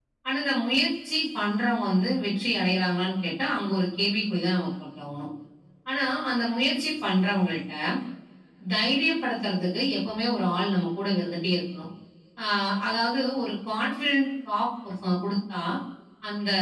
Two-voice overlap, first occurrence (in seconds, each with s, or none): none